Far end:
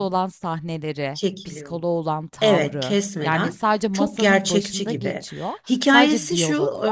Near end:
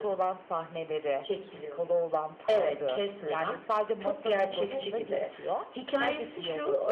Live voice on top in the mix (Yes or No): No